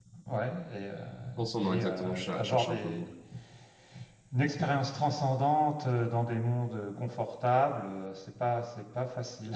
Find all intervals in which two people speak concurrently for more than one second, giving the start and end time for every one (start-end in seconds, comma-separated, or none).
1.6-3.0